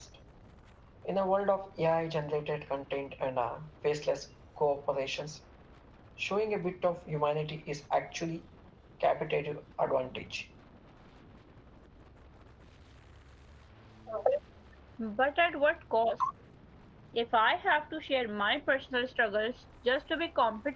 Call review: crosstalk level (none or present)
none